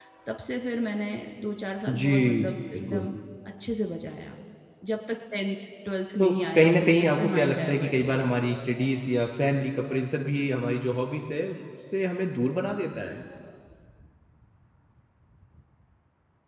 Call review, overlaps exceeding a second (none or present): present